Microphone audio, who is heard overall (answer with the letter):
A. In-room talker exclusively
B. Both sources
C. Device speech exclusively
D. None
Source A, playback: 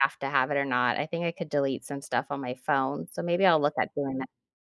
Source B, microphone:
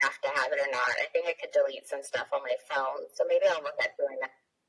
C